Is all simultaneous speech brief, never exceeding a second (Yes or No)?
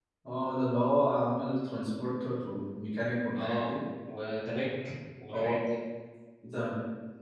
Yes